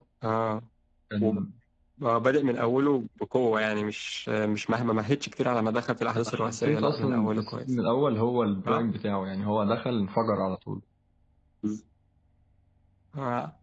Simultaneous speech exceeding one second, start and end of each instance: 6.2-7.7

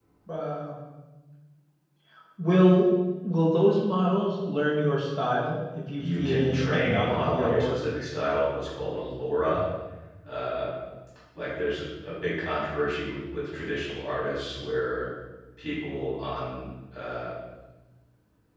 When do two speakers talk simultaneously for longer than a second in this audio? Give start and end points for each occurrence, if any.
6.0-7.8

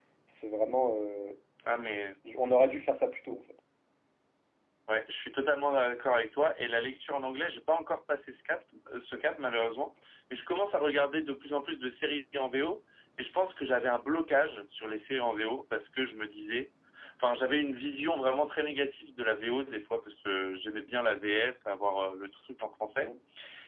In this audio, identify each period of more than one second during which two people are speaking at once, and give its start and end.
none

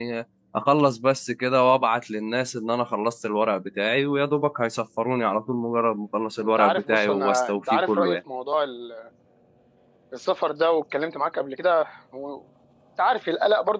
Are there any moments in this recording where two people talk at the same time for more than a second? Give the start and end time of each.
6.4-8.2

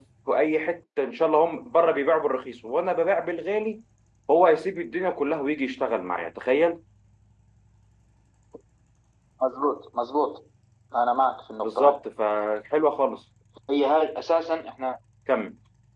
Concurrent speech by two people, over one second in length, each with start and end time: none

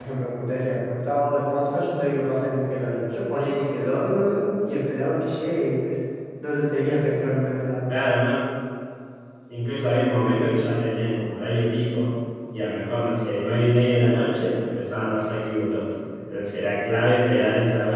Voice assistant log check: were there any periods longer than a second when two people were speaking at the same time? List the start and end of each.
none

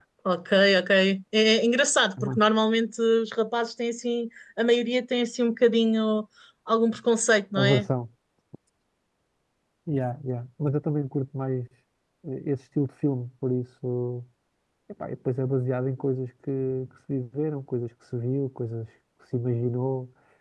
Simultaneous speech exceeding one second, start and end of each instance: none

